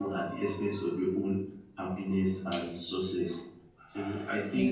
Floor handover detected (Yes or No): No